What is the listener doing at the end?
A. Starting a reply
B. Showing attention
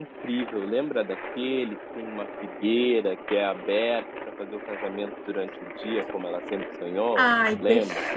A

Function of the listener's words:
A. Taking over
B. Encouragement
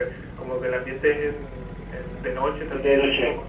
B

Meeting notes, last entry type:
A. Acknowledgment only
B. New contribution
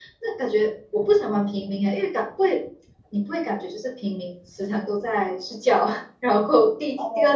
A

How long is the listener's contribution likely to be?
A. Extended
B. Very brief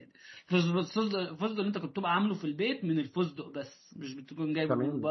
A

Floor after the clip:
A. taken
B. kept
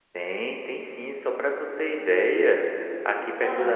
B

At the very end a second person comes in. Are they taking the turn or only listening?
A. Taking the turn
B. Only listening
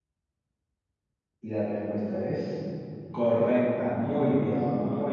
A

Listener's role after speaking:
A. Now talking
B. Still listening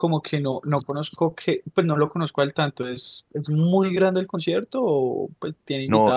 A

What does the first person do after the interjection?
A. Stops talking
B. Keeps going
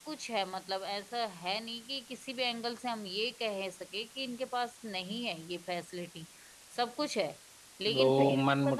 A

